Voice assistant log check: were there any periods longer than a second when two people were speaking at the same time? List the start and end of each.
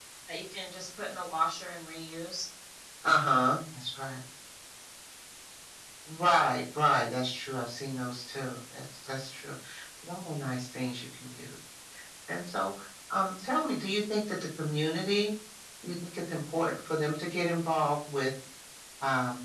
none

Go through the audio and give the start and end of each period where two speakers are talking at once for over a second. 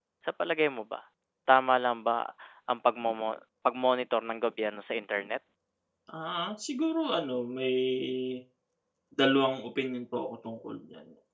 none

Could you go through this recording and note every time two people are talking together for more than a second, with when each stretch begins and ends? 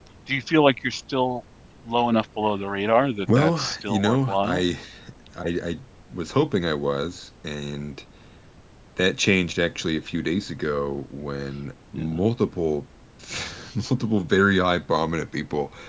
3.4-4.6

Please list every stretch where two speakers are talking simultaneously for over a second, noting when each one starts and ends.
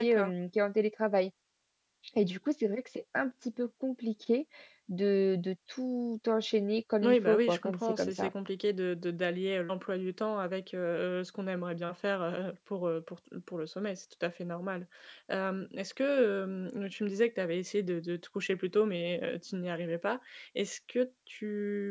7.0-8.3

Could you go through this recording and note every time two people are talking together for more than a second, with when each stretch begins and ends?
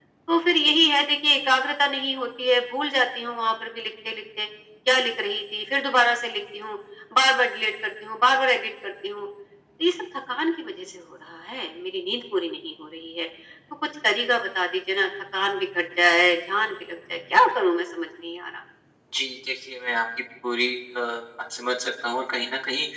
none

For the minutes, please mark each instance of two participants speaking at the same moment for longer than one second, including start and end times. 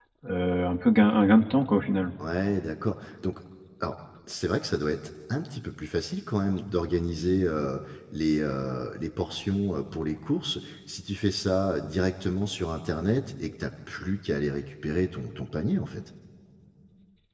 none

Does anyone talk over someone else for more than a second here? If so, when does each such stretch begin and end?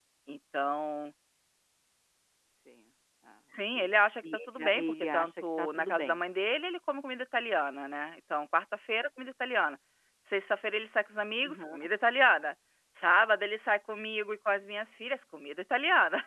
4.5-6.2

